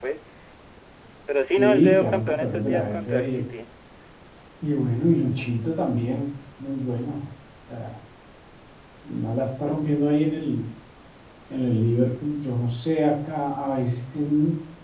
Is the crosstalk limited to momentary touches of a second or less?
No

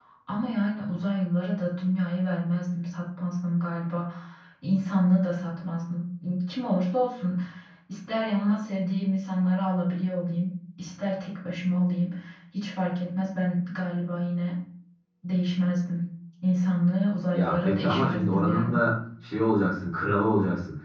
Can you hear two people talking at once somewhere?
Yes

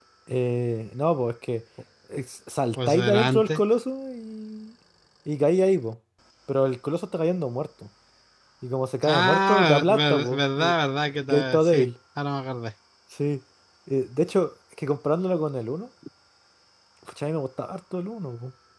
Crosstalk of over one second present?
Yes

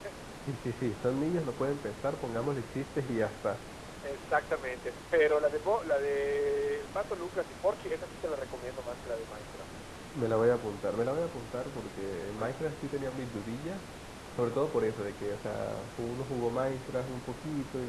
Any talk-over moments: No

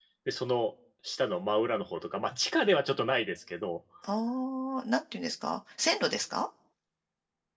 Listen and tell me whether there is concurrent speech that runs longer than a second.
No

